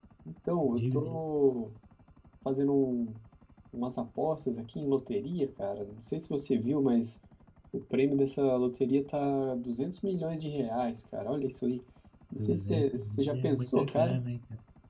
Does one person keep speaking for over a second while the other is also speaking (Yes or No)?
Yes